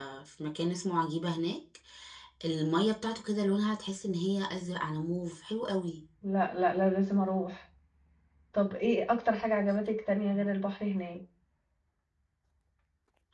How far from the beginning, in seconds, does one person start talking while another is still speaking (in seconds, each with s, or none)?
none